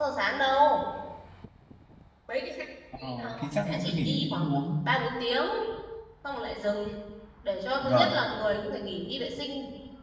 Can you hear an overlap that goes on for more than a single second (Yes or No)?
Yes